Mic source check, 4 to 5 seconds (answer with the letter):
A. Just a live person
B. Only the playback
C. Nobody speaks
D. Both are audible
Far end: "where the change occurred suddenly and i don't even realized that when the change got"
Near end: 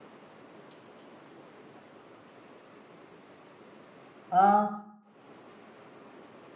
A